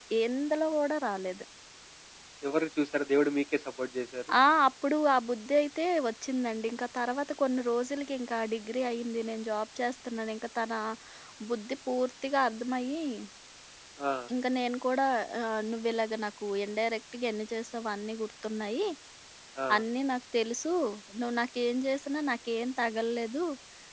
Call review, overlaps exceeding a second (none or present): none